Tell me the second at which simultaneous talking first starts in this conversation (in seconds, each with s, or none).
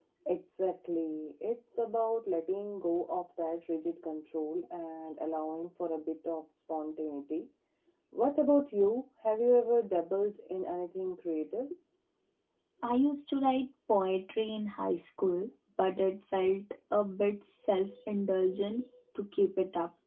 none